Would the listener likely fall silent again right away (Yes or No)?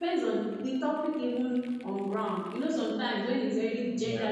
Yes